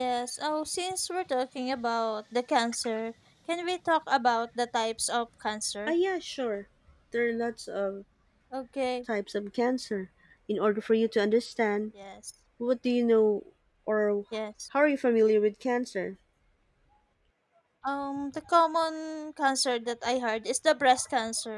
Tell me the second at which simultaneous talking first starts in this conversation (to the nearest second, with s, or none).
none